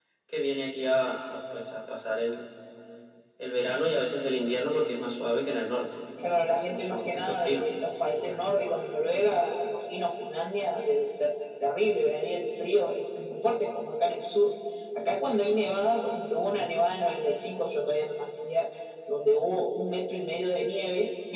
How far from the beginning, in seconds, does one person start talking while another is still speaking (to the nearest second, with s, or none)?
6 s